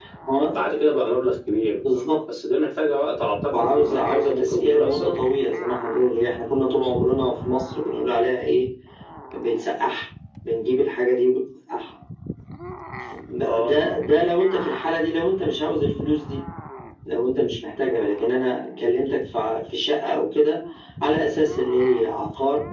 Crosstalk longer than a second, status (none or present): present